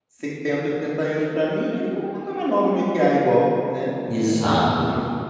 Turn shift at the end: Yes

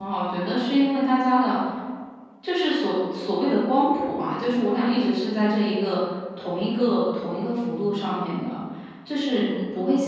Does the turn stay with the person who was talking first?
Yes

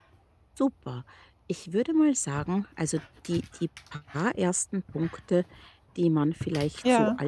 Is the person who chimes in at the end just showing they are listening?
Yes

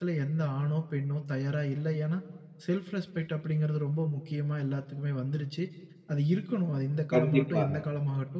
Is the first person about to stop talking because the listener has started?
No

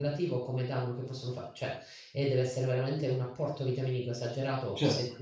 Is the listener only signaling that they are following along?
Yes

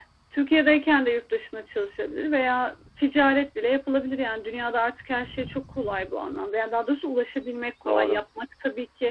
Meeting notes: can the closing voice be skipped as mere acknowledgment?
Yes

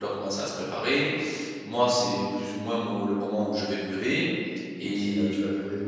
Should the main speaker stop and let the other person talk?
Yes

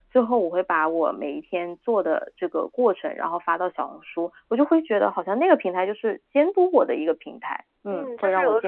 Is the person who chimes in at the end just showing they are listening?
No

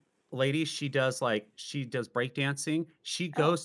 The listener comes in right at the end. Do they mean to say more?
No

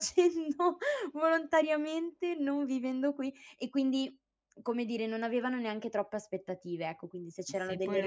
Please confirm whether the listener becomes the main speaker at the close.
Yes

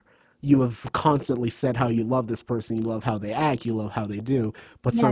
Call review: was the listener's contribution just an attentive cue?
No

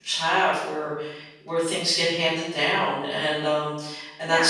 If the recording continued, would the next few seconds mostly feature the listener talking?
Yes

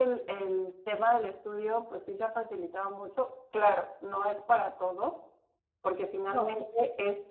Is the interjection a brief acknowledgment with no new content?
Yes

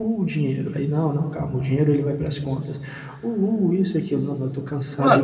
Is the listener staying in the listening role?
No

